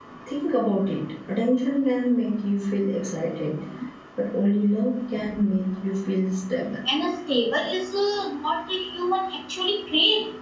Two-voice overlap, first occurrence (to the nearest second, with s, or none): none